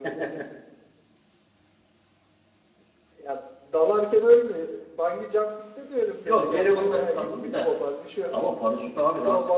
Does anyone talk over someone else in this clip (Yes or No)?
Yes